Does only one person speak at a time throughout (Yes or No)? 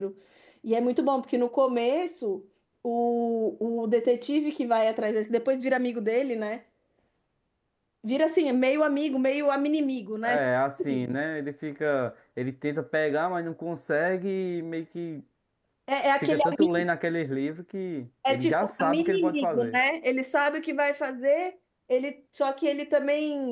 No